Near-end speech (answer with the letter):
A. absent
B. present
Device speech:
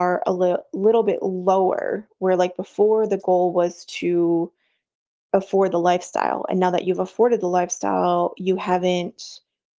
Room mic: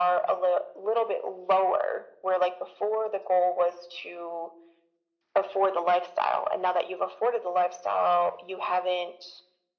A